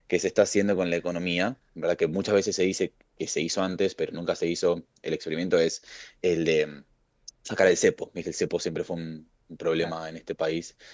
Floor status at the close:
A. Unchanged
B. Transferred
A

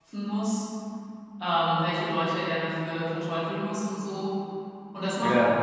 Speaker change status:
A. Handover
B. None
B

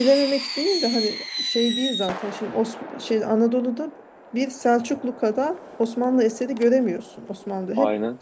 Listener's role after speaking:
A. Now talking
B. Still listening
B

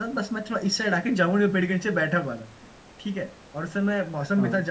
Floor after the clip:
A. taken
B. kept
B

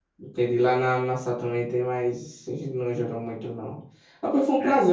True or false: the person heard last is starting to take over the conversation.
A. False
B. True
A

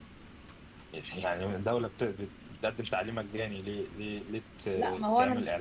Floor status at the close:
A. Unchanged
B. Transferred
B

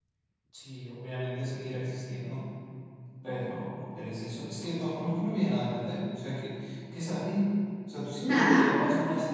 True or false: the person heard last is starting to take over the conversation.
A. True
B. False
B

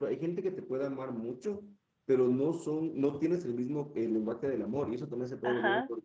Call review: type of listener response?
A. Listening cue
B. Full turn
B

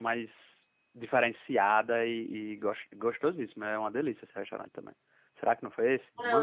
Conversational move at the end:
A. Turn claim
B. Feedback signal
A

